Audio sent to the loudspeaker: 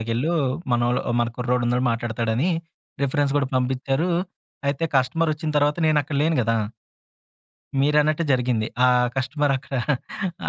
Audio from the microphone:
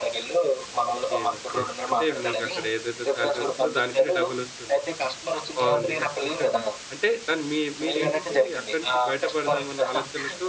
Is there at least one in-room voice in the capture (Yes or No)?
Yes